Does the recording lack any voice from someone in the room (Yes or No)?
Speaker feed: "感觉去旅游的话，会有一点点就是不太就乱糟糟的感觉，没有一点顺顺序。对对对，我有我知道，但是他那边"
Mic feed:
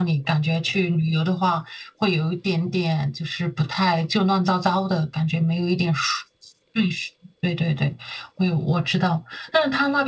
Yes